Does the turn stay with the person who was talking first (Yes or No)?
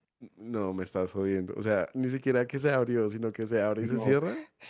No